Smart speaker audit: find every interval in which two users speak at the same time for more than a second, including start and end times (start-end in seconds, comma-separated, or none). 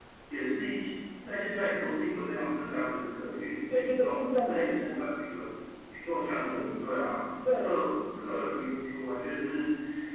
3.7-5.2